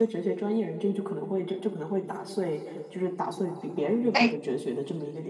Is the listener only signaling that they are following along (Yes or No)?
Yes